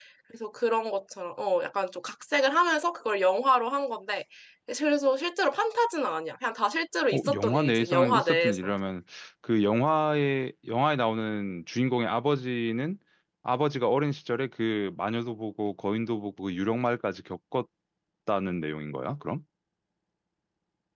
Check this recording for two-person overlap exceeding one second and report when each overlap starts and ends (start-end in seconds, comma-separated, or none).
7.1-8.7